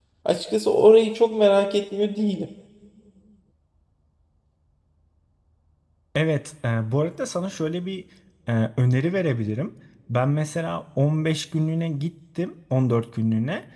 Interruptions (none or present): none